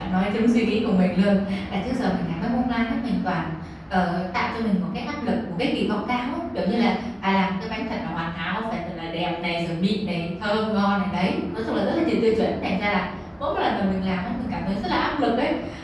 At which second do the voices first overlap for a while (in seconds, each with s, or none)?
none